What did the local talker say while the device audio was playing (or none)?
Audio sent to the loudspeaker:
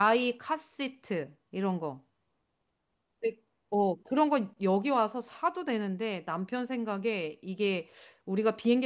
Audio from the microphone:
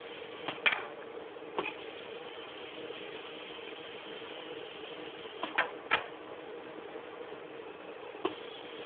none